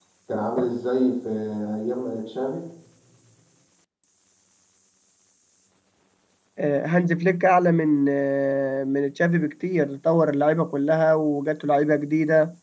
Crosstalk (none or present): none